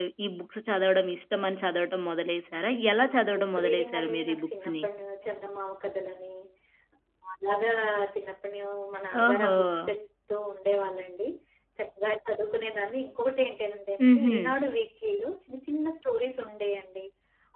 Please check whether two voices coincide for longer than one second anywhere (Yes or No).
Yes